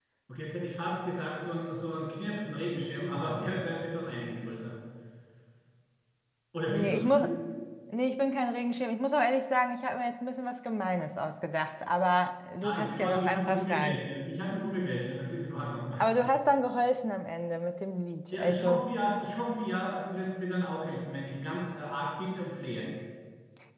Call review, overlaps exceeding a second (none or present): present